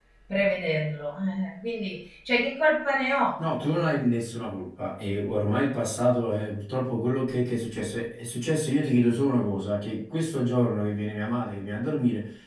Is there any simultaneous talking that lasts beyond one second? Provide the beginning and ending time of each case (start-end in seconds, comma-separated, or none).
none